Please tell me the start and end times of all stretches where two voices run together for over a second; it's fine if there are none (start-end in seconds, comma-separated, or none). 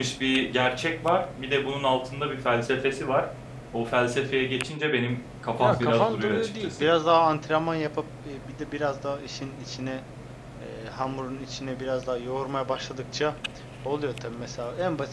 5.6-6.9